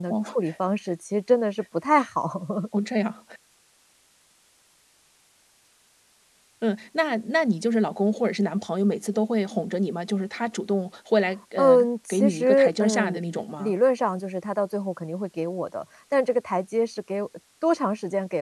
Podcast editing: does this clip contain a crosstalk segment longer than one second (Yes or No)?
Yes